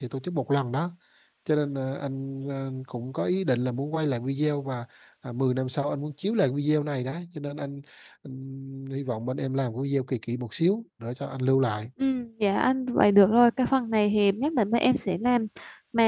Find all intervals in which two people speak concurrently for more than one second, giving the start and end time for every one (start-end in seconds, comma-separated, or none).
none